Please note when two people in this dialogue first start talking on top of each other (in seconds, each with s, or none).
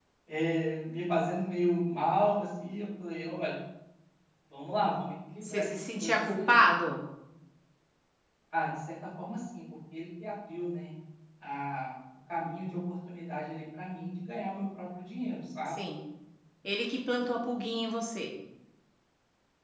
5.4 s